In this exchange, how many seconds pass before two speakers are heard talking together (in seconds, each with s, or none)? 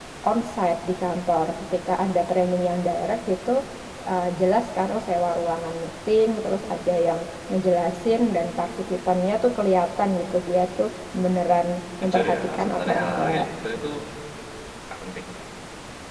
12.0 s